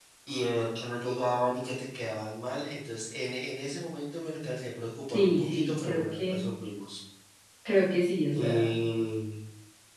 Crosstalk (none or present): present